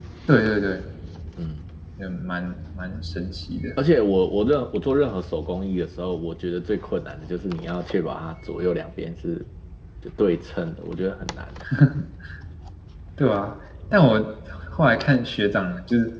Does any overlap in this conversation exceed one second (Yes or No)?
No